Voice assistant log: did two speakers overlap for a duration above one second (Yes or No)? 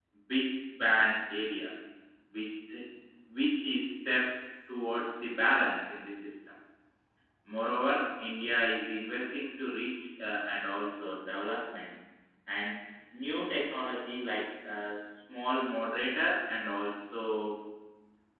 No